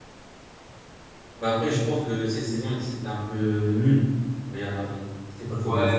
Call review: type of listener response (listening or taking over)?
taking over